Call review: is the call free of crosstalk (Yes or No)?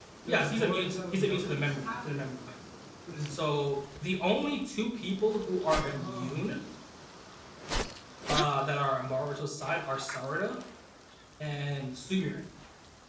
No